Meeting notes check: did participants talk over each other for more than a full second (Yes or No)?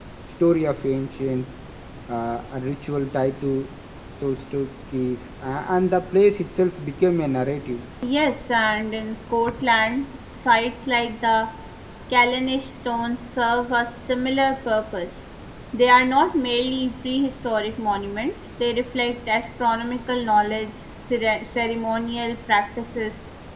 No